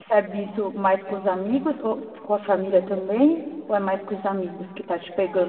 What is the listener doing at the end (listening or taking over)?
taking over